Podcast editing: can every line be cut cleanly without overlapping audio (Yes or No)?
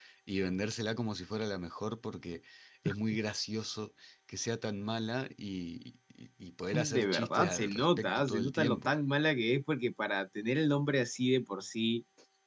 No